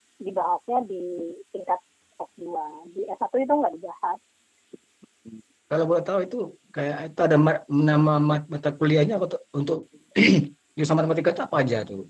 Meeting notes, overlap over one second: none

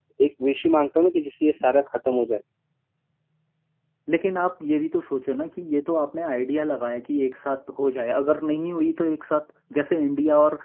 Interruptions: none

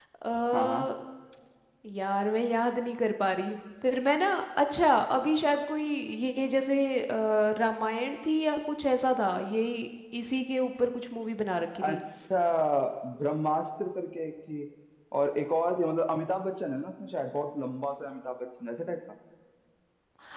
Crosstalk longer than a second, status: none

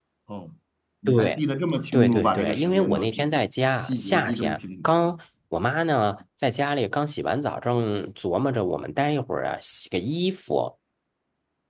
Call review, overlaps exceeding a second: present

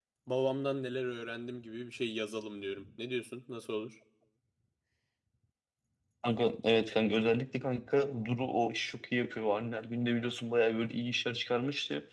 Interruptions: none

